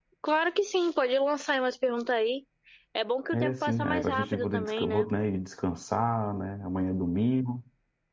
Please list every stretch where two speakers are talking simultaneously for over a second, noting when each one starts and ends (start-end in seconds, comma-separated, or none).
3.3-5.1